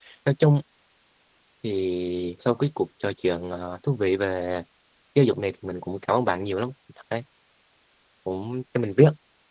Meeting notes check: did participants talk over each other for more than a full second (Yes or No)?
No